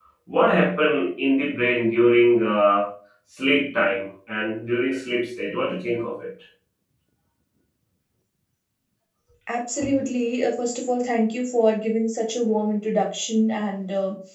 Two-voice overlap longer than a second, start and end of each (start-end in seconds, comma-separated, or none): none